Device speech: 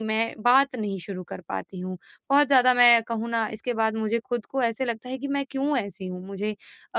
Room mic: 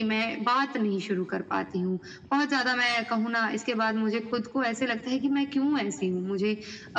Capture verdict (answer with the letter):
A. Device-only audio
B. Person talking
A